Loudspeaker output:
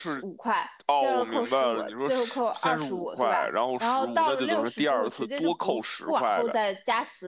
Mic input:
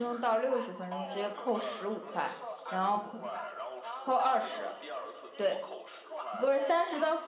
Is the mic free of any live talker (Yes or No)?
No